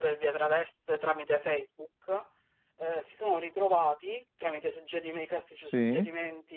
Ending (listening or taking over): listening